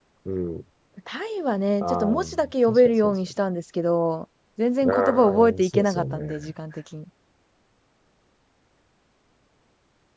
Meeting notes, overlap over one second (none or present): present